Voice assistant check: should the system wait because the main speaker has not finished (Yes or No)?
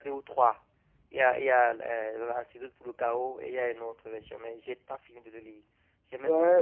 No